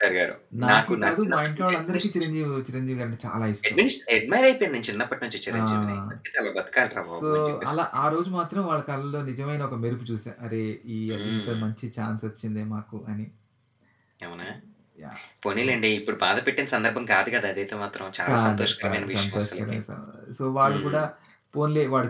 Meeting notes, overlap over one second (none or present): present